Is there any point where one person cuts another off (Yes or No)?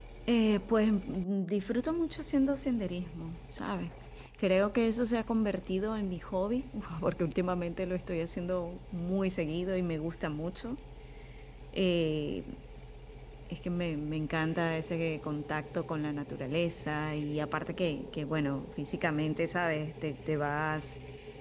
No